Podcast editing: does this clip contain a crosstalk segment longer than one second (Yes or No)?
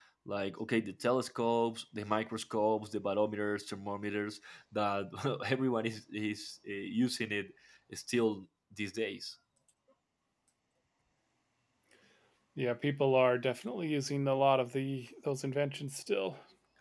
No